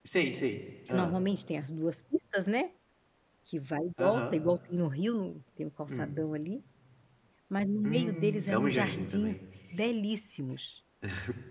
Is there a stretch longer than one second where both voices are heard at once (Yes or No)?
Yes